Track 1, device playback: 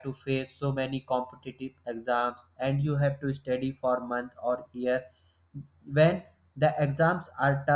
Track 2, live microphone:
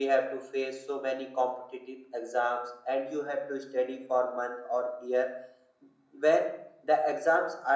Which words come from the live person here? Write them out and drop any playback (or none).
none